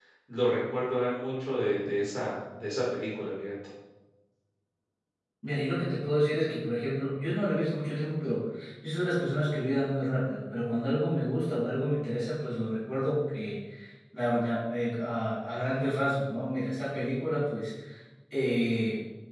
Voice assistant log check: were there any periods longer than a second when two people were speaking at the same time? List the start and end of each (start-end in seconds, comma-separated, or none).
none